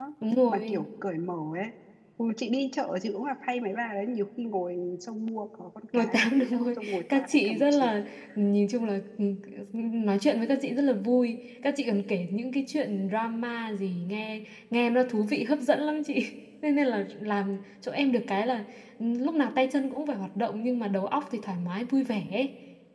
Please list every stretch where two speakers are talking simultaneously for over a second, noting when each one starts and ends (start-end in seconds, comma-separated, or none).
5.9-7.9